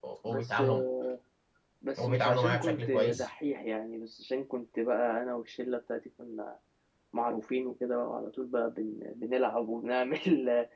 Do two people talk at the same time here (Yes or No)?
Yes